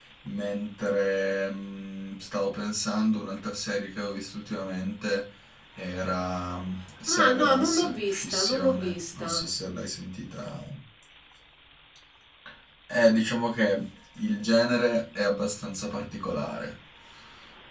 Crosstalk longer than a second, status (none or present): present